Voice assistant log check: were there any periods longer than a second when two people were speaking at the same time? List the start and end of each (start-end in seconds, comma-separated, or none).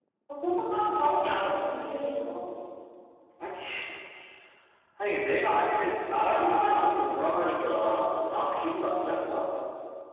none